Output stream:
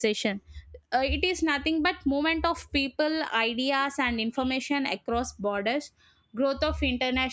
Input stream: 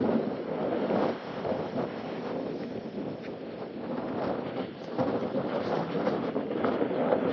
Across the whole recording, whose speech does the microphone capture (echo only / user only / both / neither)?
neither